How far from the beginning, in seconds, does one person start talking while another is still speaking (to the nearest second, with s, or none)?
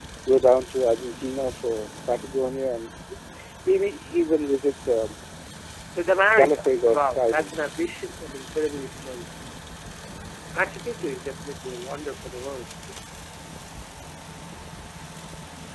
6 s